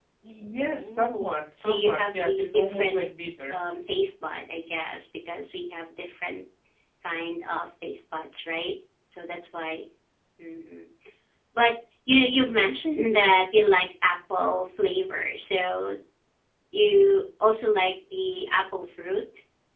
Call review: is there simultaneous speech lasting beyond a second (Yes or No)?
Yes